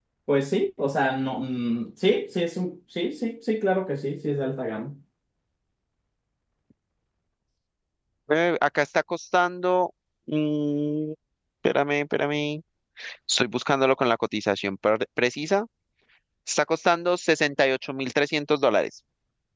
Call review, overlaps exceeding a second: none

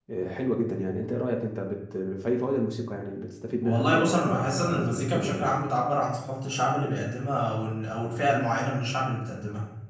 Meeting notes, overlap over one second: present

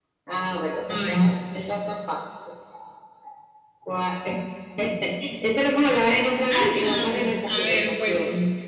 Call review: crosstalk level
present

